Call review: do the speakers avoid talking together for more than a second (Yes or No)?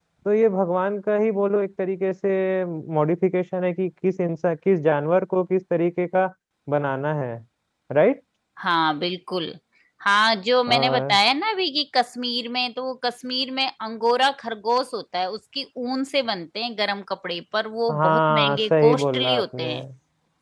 No